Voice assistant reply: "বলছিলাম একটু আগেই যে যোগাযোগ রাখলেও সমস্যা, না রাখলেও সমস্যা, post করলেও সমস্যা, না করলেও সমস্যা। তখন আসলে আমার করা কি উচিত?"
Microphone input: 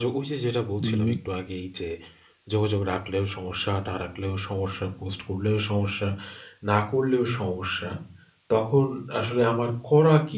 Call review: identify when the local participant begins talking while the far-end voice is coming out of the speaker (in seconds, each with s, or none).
0.8 s